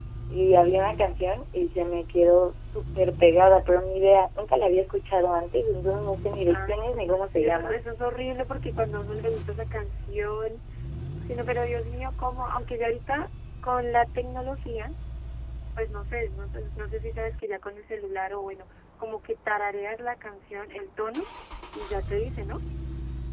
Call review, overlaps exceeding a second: present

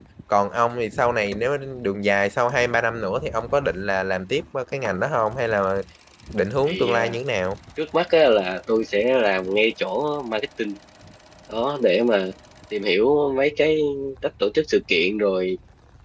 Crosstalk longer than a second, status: none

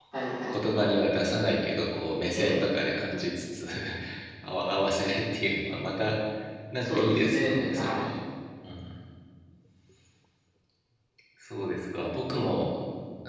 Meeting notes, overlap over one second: present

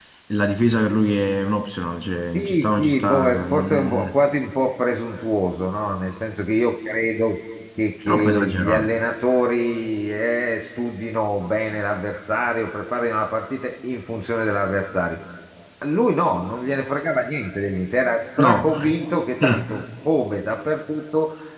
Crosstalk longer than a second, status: present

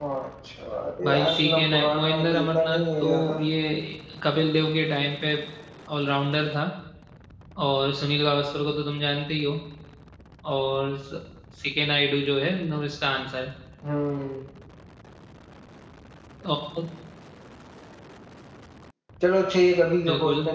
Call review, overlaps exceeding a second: present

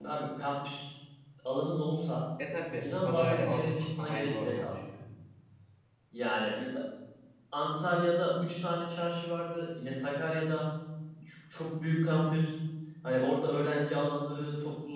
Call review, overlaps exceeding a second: present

